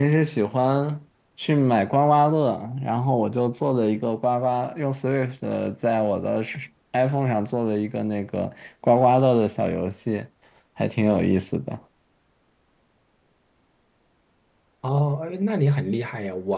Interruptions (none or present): none